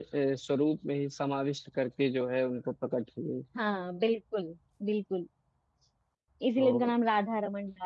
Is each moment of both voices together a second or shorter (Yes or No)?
Yes